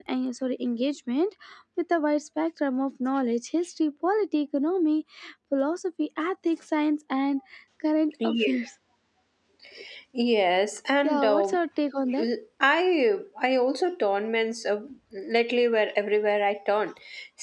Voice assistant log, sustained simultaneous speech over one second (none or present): none